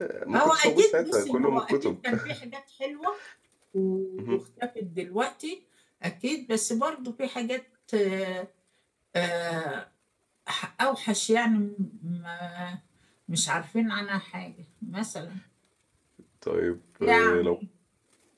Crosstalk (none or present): present